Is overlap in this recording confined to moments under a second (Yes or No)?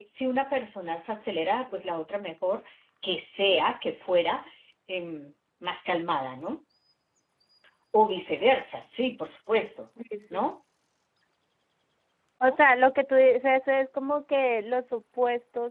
Yes